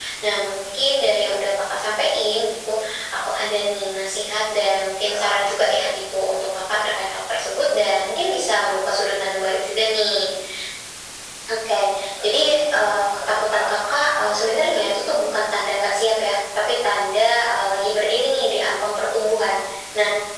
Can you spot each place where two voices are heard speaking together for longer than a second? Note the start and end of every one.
none

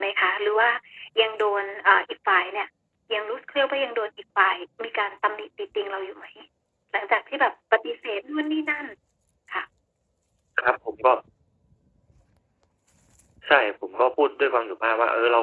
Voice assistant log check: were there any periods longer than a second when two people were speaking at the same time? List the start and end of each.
none

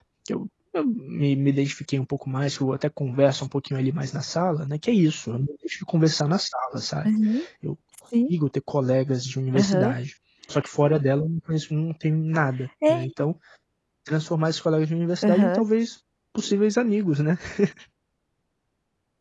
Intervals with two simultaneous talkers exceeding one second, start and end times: none

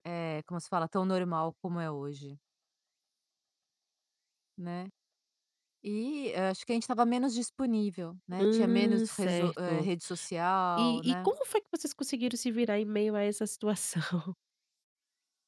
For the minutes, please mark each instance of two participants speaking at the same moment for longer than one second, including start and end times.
8.4-9.9

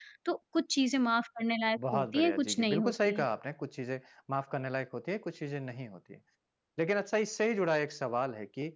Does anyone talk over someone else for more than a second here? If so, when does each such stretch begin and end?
1.9-3.2

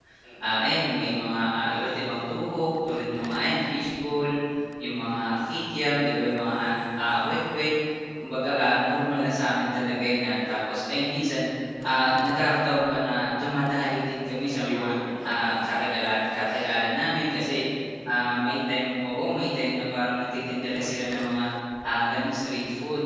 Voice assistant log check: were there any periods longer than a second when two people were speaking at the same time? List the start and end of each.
none

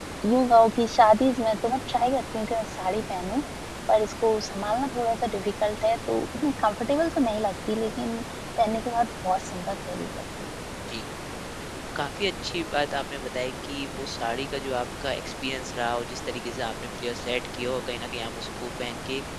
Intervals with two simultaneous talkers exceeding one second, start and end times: none

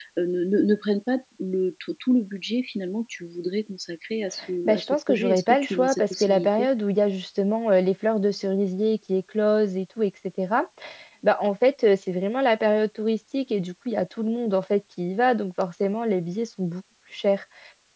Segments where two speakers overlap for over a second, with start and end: 4.7-6.7

